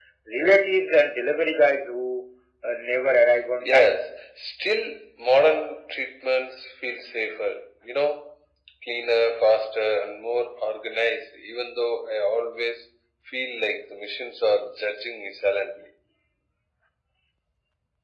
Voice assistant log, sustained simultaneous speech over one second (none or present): none